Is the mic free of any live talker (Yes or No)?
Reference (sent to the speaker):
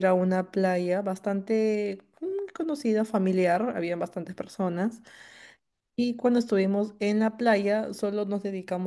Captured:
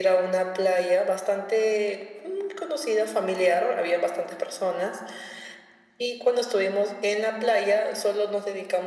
Yes